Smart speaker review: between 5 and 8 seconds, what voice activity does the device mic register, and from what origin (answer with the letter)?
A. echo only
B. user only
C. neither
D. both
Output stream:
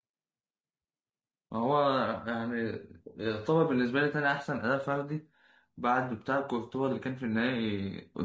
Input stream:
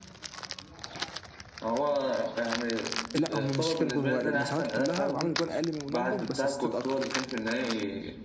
D